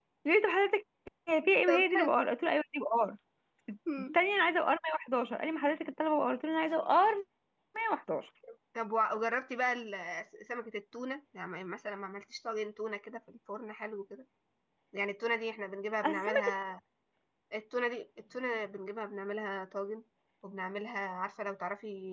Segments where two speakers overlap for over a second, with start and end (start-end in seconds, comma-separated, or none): none